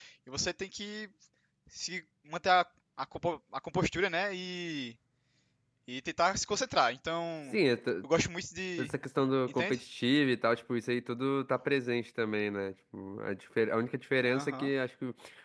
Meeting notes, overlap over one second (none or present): none